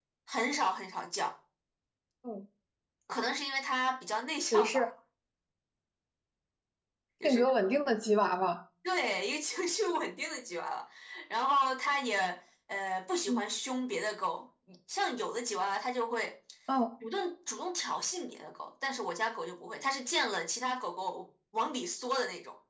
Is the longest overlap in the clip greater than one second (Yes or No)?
No